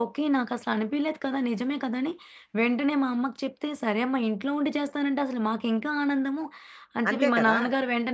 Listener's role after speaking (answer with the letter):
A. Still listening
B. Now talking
A